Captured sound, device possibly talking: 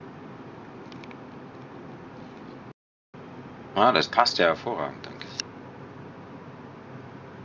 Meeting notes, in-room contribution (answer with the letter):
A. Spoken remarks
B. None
A